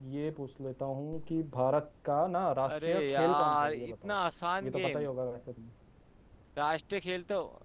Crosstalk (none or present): present